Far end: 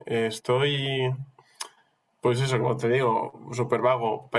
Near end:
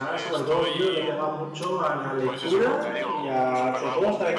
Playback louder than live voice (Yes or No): No